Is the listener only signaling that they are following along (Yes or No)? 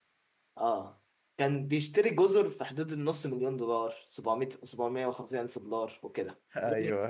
Yes